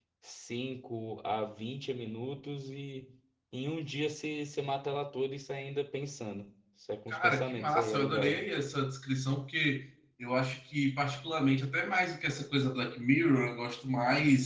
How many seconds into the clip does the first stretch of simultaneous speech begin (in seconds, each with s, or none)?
7.1 s